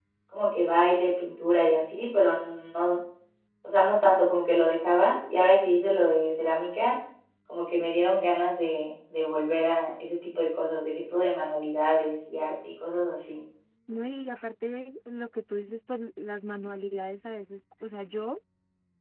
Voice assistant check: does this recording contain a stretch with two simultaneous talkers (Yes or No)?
No